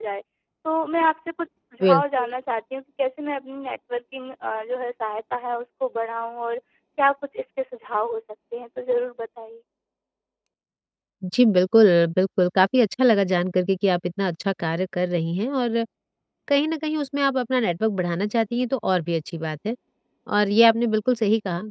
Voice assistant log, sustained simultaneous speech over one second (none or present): none